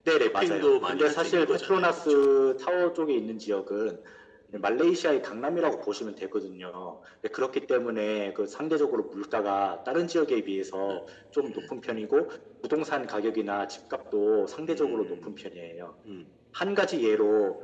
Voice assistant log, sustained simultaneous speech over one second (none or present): present